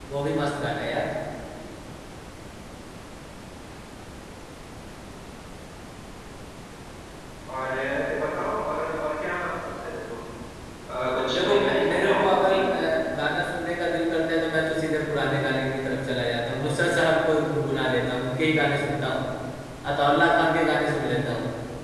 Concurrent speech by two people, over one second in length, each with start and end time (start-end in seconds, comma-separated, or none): 11.3-12.6